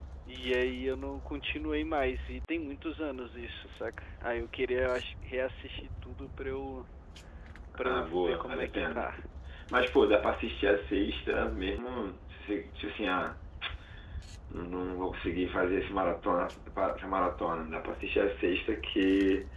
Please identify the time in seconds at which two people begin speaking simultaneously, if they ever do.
7.8 s

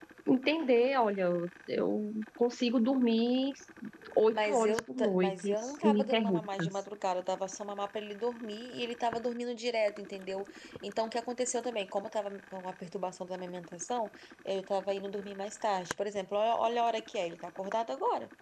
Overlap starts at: 4.3 s

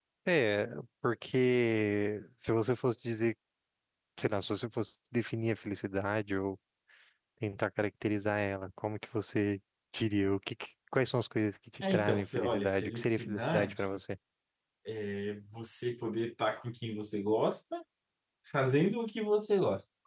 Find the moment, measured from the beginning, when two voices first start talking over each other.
11.8 s

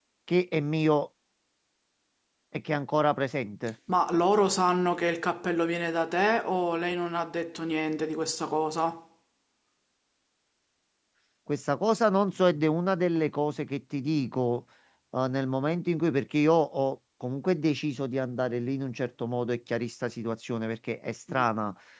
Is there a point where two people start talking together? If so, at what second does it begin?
none

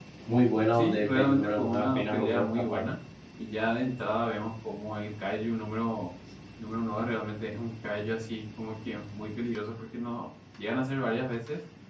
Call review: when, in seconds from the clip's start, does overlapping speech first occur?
0.7 s

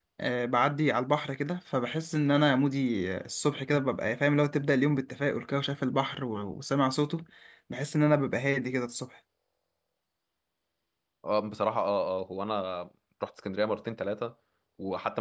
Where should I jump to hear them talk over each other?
none

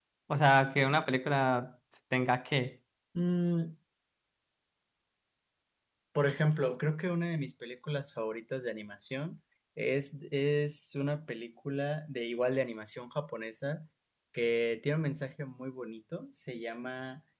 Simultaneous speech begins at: none

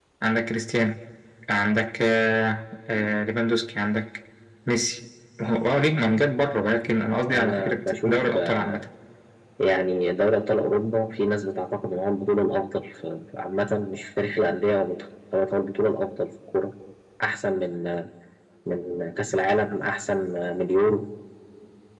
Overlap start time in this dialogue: 7.2 s

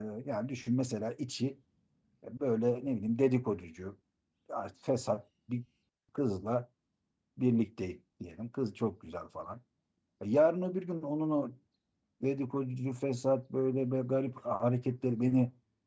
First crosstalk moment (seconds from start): none

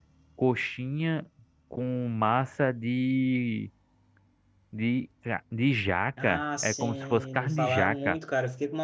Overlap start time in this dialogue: 6.2 s

